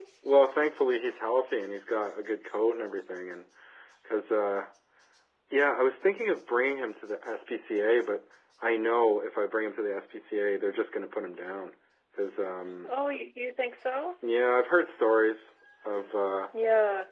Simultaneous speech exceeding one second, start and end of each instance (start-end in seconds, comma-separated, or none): none